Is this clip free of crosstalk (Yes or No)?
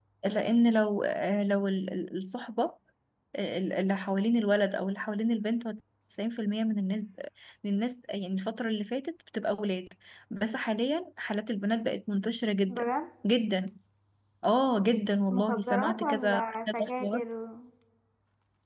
No